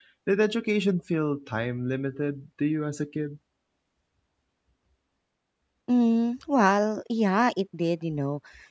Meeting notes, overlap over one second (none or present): none